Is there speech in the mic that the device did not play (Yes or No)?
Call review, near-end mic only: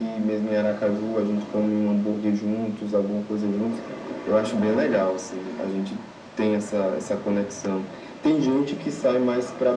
No